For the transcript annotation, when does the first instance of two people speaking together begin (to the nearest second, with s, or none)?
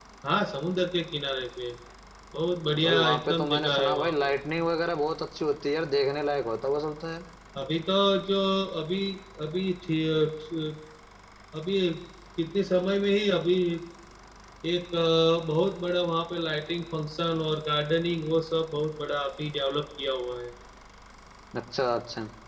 3 s